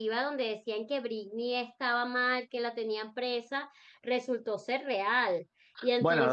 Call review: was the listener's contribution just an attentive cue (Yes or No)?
No